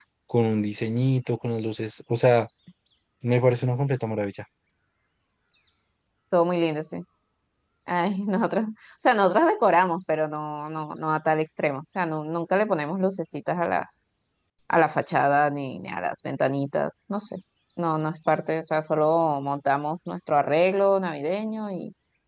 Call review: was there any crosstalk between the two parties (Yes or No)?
No